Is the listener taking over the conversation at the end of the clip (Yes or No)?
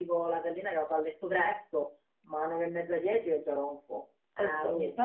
Yes